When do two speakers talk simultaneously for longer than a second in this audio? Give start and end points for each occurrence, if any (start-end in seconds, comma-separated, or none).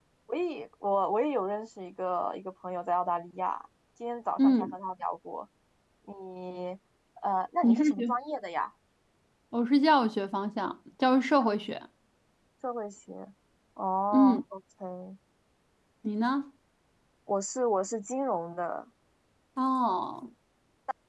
none